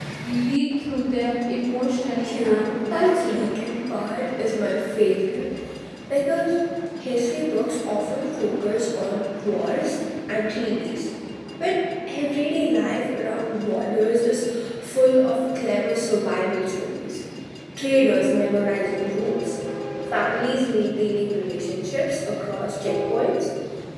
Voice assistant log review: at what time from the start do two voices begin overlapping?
2.2 s

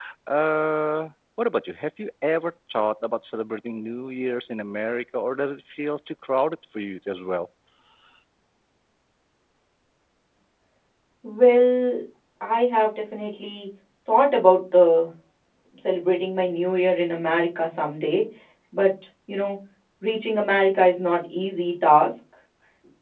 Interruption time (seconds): none

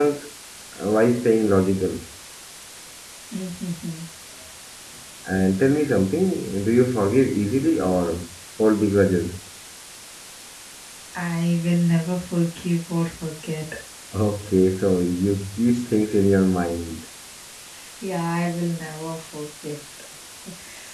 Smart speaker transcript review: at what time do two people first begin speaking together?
none

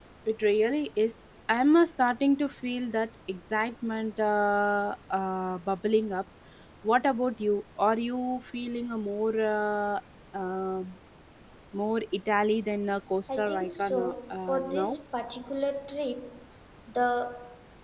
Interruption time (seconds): 13.3 s

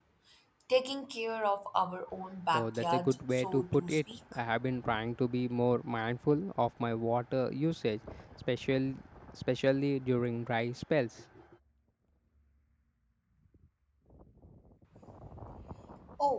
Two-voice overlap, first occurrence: 2.5 s

